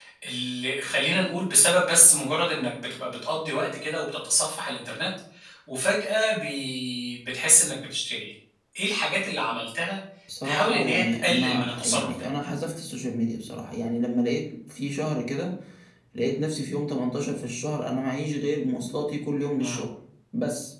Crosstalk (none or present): present